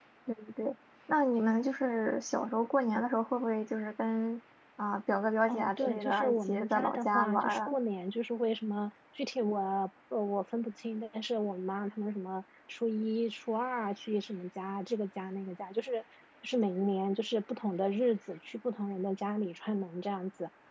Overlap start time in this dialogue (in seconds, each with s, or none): 5.5 s